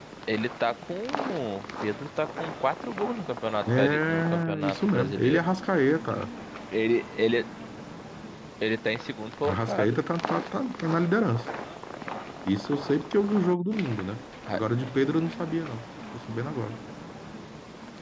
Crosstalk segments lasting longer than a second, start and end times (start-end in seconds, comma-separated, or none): 3.7-5.4